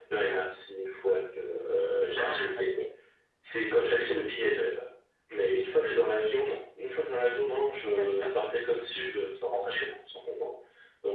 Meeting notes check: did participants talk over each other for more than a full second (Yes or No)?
No